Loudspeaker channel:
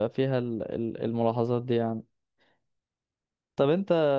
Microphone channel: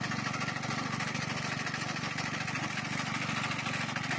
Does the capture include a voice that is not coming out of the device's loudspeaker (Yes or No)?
No